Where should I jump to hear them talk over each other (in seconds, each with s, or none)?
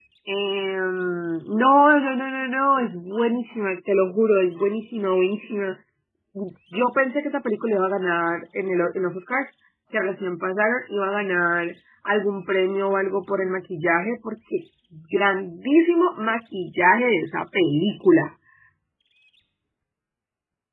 none